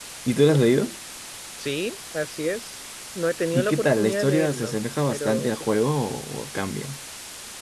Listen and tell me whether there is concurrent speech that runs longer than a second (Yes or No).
Yes